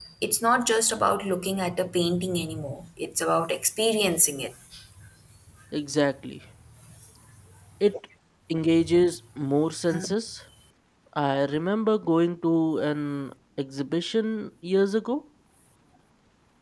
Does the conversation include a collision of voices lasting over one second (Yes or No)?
No